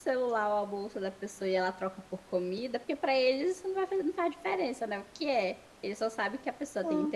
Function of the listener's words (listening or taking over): listening